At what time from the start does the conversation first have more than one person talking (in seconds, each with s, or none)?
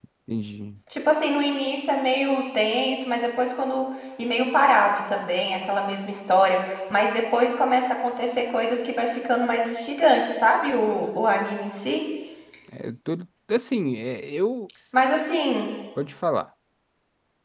none